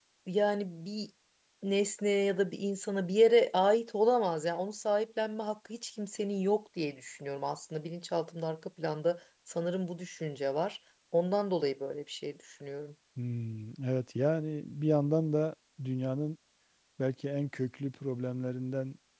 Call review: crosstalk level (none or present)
none